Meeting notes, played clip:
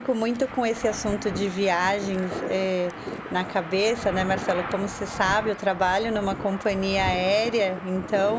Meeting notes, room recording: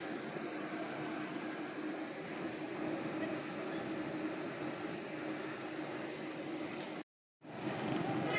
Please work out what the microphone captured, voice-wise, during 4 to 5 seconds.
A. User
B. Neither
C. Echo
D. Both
B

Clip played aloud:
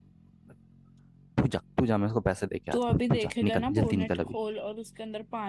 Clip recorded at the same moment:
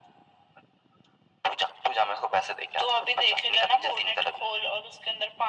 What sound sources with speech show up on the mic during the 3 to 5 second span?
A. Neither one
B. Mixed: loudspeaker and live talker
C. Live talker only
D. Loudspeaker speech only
D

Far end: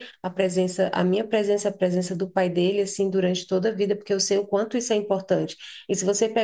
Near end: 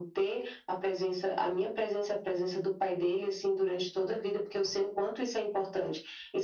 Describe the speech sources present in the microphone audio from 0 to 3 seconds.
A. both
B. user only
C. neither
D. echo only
D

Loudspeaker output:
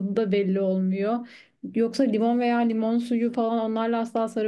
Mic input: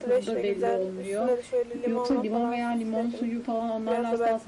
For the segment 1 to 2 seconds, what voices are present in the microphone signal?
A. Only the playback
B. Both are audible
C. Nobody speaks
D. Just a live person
B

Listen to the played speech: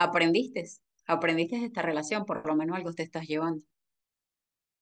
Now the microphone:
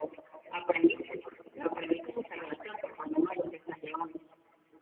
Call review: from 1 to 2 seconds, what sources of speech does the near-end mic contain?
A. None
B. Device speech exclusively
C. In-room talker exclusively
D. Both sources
D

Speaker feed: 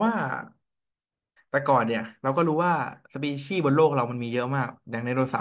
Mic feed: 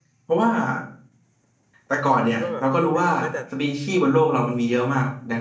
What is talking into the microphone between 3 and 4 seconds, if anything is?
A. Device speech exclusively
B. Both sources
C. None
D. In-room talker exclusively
B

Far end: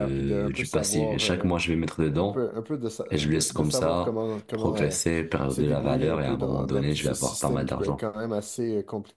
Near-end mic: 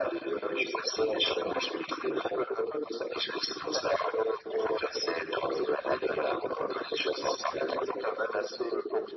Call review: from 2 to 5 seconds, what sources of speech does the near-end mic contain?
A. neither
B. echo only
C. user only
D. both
B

